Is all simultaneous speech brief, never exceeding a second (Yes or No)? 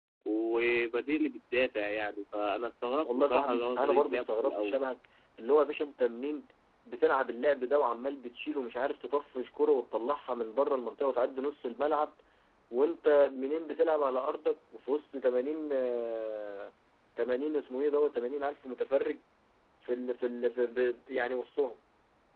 No